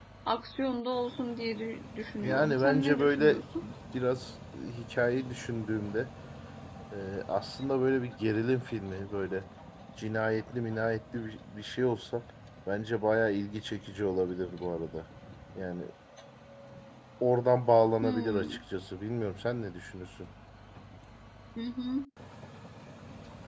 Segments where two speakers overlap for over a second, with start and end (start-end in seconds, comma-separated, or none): 2.2-3.4